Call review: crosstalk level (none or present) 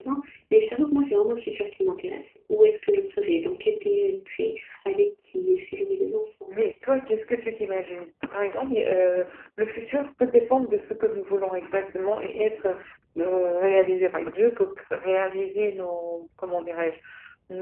none